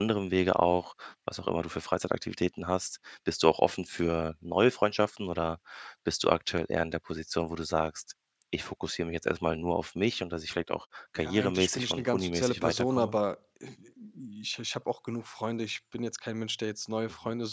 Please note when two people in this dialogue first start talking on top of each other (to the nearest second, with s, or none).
11 s